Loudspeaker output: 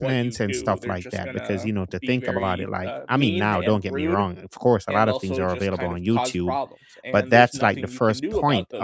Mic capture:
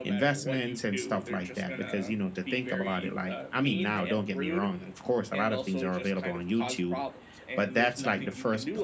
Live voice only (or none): none